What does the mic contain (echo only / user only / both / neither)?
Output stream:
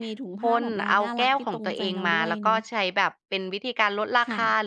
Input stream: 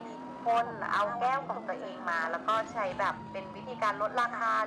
echo only